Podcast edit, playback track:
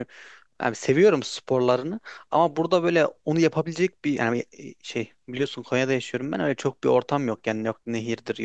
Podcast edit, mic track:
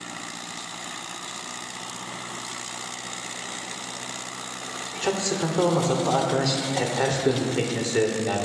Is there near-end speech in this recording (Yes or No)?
Yes